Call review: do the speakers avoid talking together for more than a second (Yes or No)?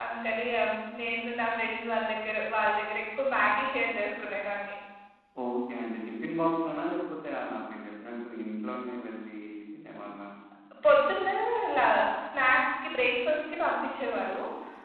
Yes